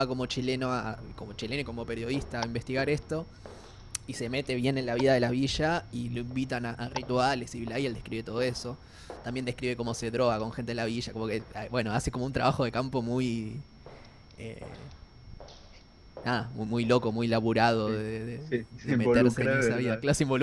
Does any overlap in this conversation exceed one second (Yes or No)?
Yes